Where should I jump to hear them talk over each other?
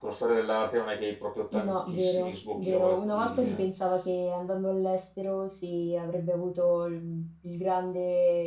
1.5 s

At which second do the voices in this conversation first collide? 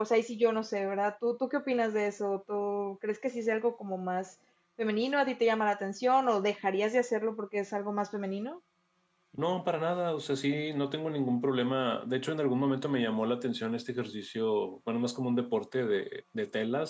none

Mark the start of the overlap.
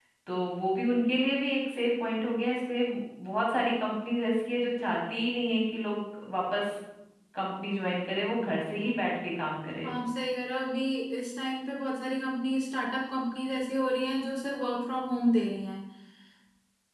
none

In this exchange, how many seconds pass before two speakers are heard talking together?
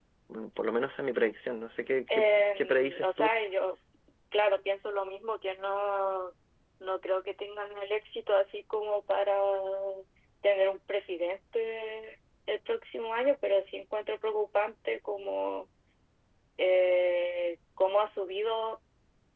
2.1 s

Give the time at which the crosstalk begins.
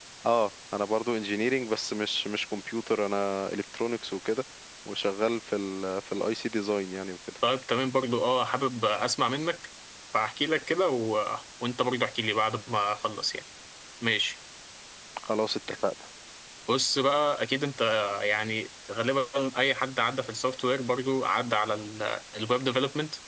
none

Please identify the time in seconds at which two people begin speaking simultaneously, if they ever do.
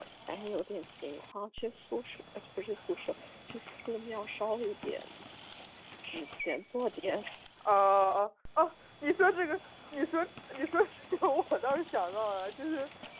none

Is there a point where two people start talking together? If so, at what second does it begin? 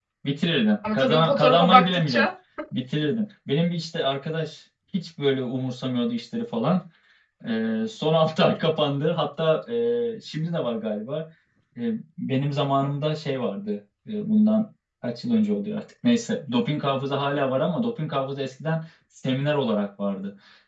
0.9 s

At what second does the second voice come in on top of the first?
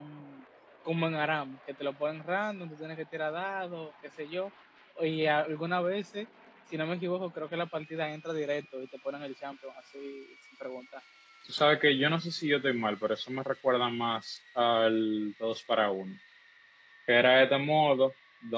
none

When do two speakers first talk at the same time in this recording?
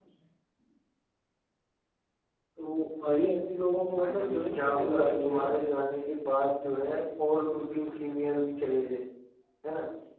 3.9 s

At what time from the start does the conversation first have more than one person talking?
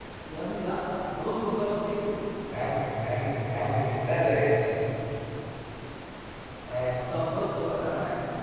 none

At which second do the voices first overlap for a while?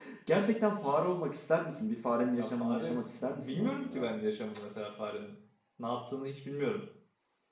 2.3 s

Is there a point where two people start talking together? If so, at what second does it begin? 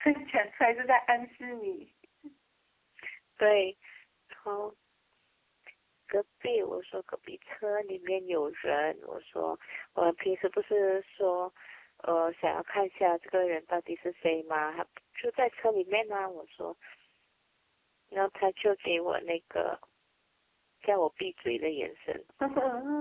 none

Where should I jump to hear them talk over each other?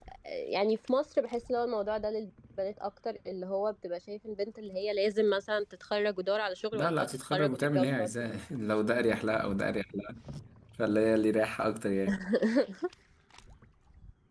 6.7 s

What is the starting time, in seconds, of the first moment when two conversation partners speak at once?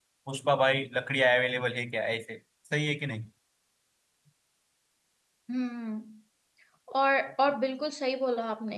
none

